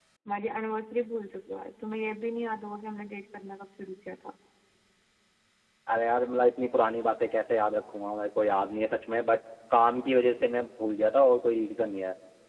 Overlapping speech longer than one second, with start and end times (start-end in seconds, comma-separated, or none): none